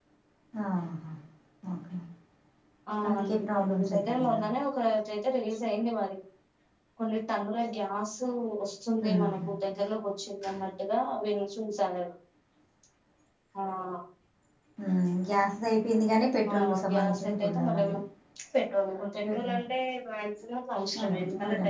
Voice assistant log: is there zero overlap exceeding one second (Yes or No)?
No